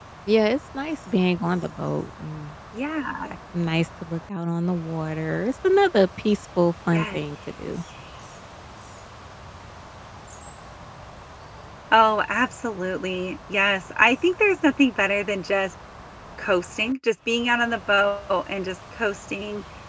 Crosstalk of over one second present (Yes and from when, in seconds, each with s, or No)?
No